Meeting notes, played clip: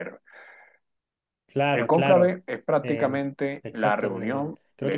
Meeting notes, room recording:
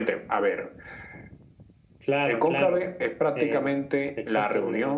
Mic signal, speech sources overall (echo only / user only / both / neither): echo only